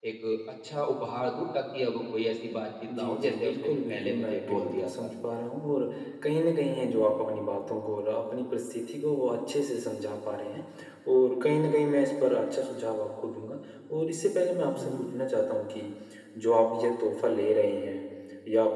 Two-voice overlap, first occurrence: 3.0 s

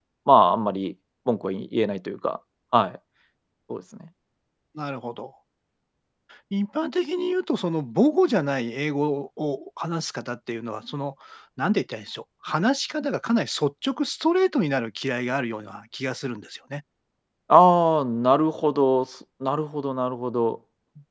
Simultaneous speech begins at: none

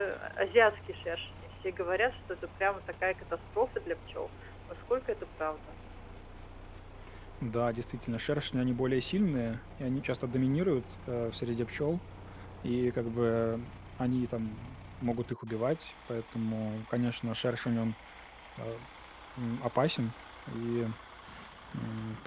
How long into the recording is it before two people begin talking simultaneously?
none

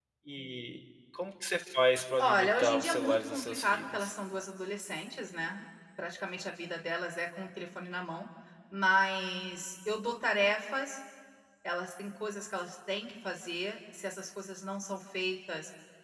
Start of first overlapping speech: 2.2 s

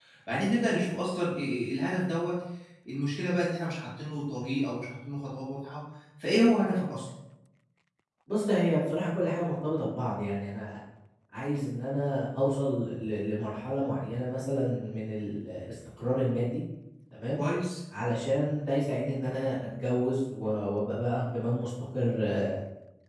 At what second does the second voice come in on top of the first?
none

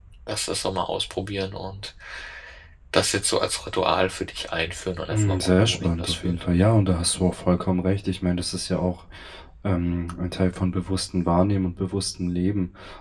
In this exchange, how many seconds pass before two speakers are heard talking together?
5.1 s

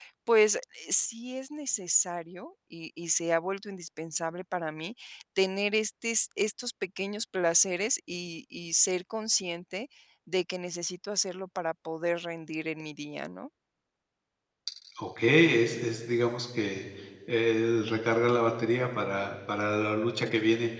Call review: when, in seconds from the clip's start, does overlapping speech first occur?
none

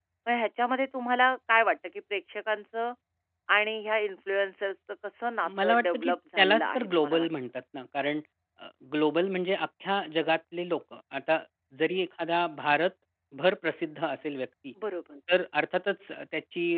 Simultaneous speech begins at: 5.4 s

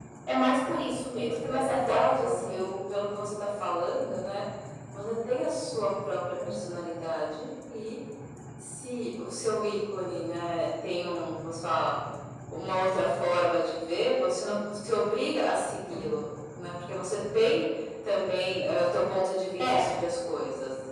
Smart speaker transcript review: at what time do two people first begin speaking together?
1.4 s

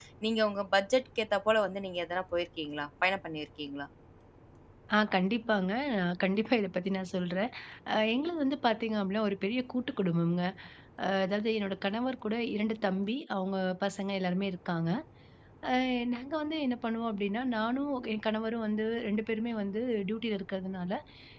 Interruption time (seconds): none

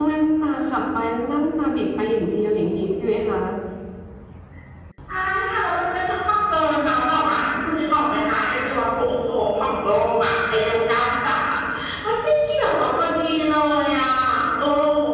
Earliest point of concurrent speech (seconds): none

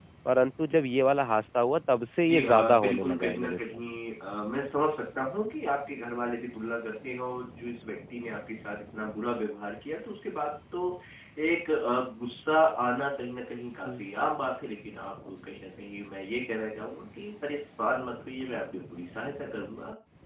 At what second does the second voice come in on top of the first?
2.2 s

